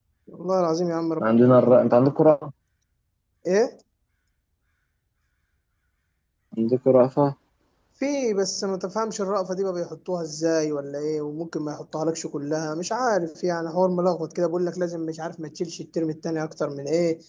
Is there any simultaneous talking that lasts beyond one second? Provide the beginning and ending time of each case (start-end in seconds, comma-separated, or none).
none